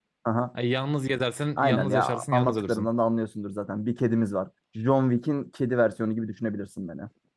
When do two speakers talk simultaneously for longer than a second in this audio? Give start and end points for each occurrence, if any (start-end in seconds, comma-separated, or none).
1.6-2.9